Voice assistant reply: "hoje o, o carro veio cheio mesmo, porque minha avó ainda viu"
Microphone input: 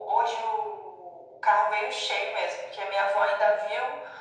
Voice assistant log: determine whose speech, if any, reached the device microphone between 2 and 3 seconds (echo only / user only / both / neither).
echo only